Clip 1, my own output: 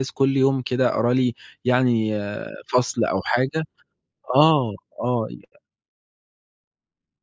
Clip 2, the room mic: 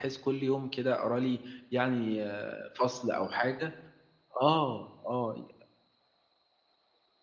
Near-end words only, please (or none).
none